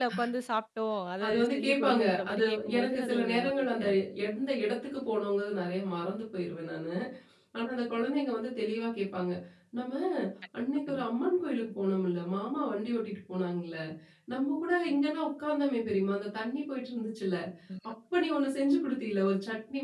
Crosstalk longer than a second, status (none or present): present